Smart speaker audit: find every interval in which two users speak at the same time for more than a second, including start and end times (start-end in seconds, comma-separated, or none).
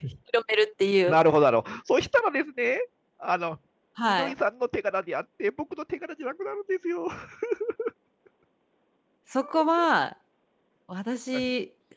none